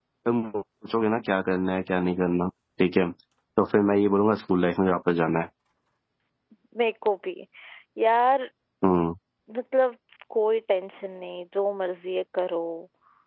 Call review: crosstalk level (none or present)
none